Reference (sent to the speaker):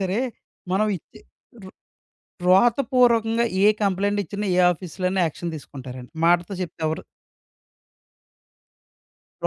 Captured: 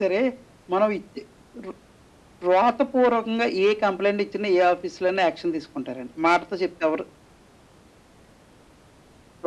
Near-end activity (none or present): none